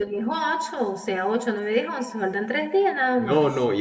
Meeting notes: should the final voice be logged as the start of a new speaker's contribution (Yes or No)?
Yes